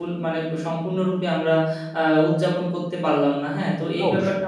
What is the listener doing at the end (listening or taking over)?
listening